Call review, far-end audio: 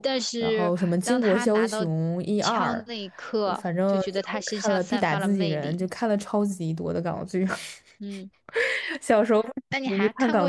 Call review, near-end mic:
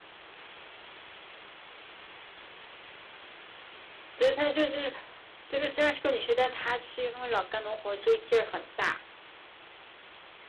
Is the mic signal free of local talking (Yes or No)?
No